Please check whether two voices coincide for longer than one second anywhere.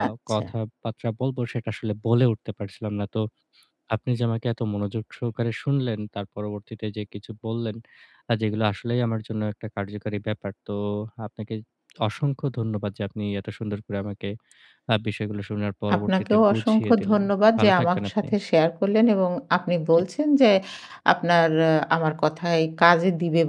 Yes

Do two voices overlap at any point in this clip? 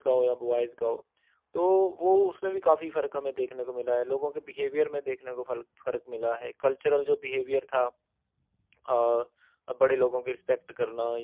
No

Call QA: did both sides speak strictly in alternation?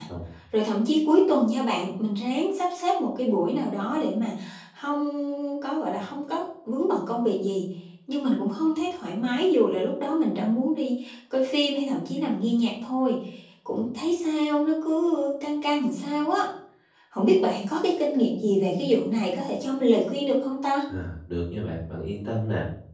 Yes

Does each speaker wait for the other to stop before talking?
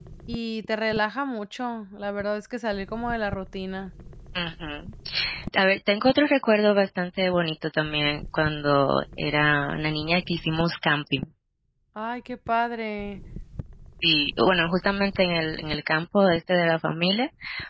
Yes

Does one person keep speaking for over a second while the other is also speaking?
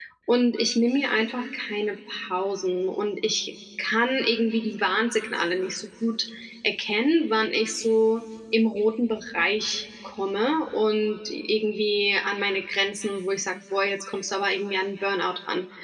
No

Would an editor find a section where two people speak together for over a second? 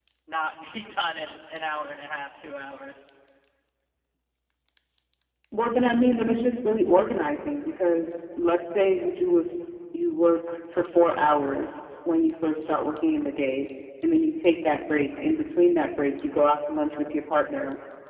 No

